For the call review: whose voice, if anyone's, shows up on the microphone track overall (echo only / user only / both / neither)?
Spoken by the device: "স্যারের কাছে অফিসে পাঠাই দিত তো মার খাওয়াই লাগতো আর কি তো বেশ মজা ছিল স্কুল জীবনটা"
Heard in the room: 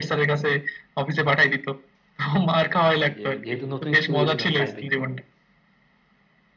both